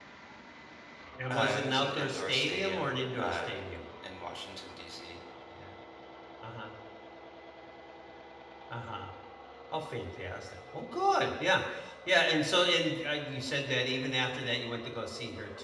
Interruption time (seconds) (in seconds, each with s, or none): 1.3 s